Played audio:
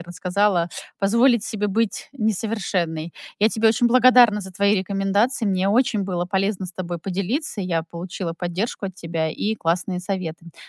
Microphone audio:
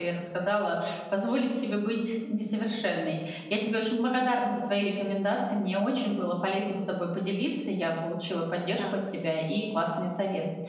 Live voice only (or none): Да,